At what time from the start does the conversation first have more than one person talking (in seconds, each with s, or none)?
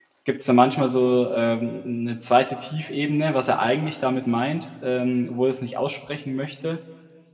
none